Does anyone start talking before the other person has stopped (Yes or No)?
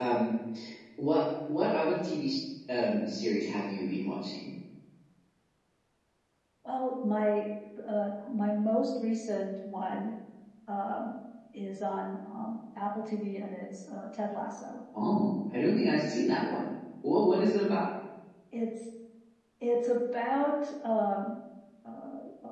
No